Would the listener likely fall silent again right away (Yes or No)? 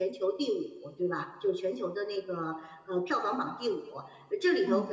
Yes